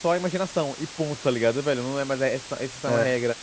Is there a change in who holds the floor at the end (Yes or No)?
No